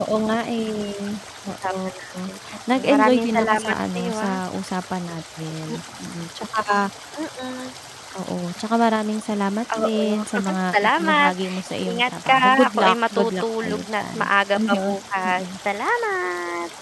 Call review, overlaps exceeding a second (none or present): present